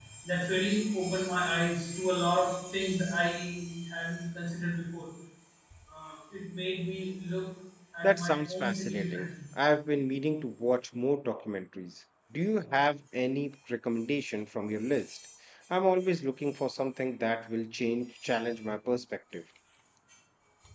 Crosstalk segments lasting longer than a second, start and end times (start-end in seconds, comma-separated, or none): 8.0-9.3